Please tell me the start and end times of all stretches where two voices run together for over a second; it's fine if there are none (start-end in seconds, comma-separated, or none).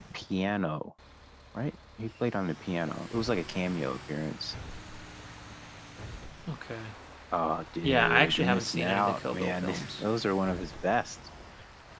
7.8-10.0